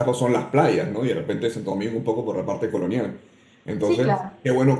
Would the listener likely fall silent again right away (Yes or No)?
Yes